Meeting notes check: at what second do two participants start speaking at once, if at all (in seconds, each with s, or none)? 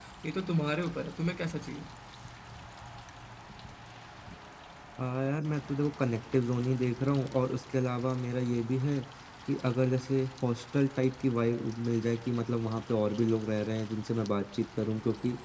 none